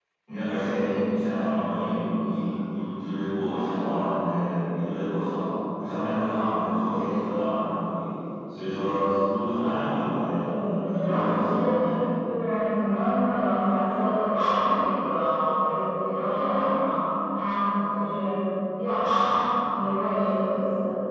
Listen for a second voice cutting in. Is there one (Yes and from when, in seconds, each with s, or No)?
Yes, from 10.4 s